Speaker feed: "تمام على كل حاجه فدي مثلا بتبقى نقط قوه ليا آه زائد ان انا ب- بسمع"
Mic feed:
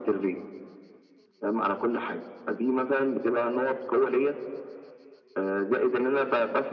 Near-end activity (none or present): none